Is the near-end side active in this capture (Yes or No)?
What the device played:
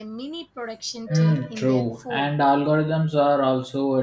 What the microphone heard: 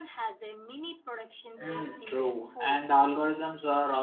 No